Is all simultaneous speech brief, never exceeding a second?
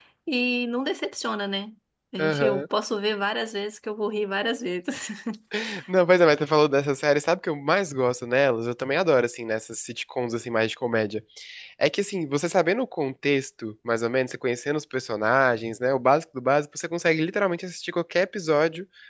Yes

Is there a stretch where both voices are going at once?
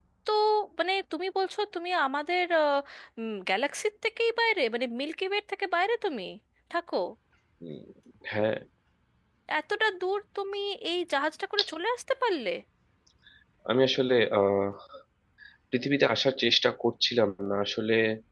No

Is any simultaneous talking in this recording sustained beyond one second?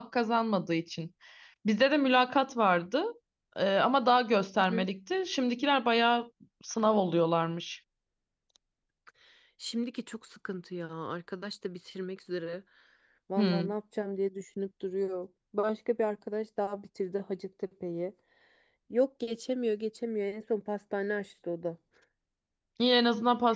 No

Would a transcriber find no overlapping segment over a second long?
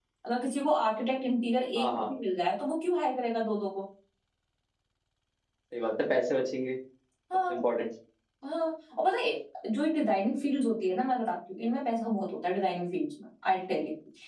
Yes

